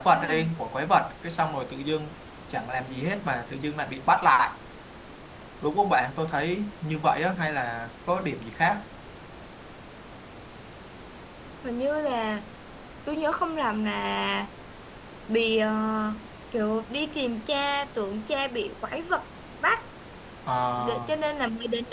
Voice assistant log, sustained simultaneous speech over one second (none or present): none